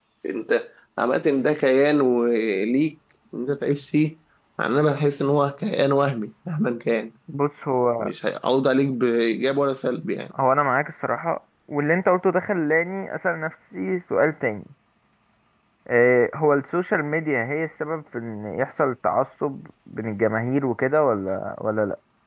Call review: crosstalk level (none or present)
none